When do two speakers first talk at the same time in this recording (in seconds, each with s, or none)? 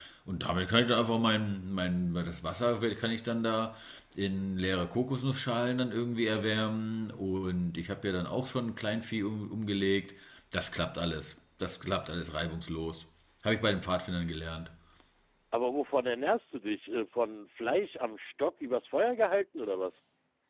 none